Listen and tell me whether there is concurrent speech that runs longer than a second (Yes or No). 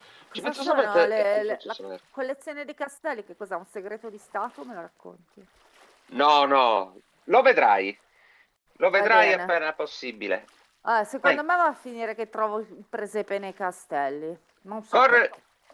Yes